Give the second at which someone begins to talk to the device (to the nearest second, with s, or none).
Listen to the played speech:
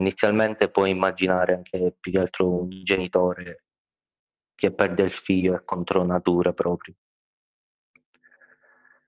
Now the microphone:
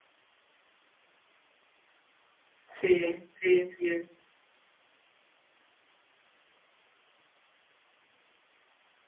3 s